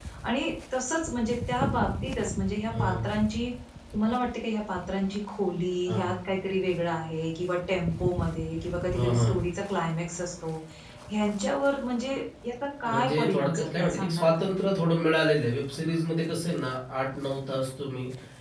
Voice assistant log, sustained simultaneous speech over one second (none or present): present